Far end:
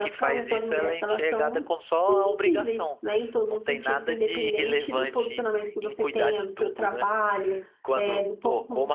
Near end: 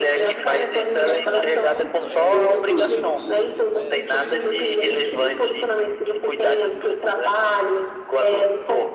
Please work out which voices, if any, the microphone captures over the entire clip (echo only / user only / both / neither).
both